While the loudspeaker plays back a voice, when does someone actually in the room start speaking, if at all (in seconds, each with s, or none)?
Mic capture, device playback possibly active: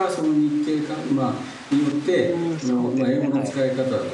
2.0 s